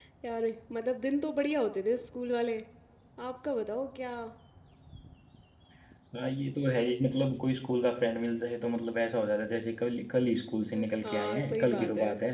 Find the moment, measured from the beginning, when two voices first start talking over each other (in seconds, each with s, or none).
10.7 s